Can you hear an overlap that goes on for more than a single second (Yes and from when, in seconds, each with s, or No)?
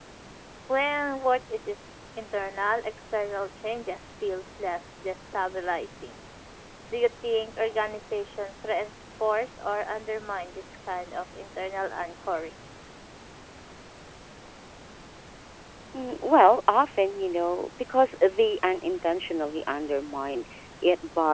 No